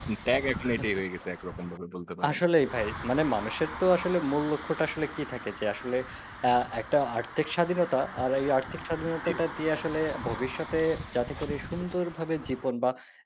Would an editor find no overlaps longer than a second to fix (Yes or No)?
Yes